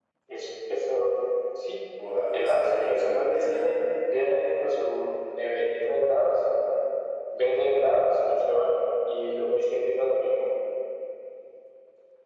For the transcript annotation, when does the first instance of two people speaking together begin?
2.4 s

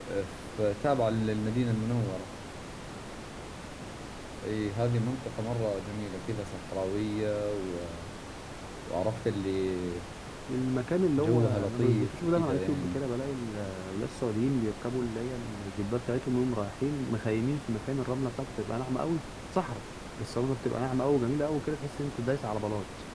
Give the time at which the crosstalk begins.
11.2 s

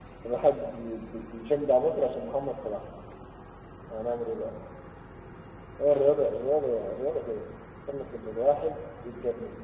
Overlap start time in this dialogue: none

